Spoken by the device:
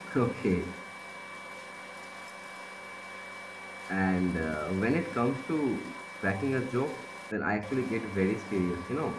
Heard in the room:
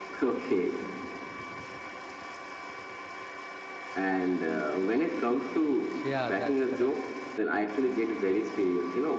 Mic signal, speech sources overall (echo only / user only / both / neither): both